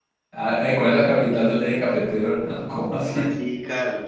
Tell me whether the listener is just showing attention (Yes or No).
No